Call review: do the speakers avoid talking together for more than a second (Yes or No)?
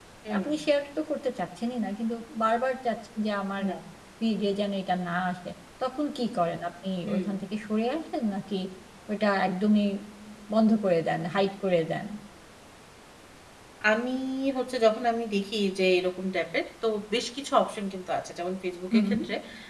Yes